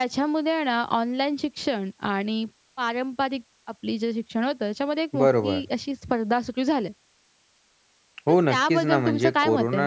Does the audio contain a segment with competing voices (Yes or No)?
Yes